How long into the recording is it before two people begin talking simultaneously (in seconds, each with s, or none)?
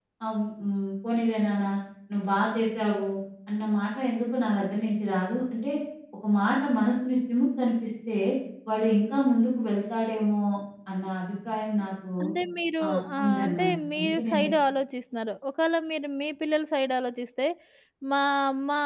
12.8 s